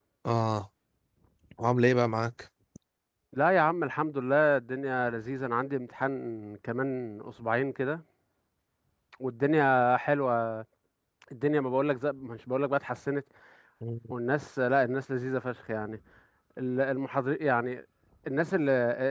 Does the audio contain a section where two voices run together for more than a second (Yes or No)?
No